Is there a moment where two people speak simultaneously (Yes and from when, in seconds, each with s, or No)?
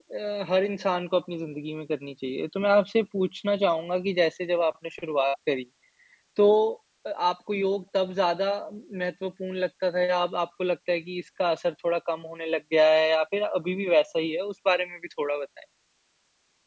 No